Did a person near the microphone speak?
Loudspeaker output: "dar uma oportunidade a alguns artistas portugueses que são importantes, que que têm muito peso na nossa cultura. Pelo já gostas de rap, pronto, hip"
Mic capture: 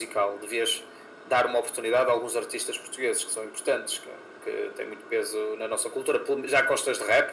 No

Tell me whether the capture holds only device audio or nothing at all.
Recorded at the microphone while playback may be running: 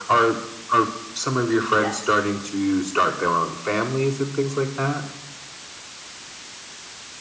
No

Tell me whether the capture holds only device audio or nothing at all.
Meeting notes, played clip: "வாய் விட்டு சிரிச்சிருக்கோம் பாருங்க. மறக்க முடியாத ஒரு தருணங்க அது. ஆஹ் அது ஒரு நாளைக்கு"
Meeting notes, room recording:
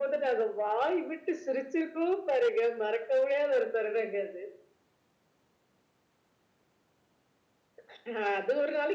Yes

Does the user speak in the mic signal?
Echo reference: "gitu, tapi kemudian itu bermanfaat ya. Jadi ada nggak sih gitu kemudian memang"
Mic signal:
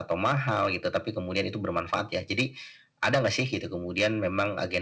No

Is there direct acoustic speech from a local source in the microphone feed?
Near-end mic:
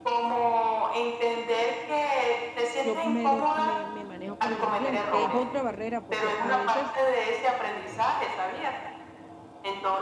Yes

